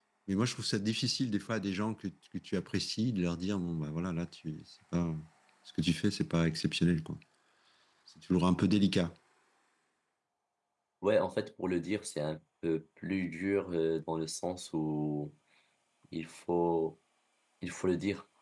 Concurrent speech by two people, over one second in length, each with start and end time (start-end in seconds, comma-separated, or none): none